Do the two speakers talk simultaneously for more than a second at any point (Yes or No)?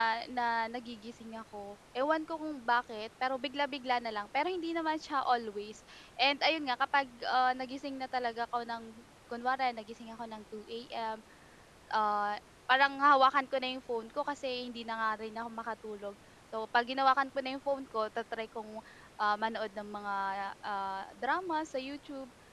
No